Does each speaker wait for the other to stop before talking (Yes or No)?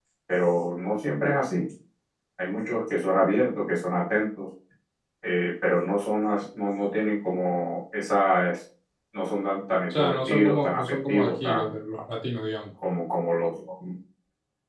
No